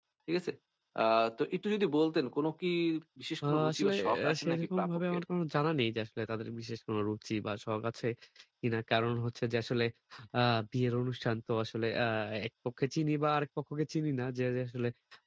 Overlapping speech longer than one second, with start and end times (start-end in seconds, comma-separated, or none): 3.5-5.2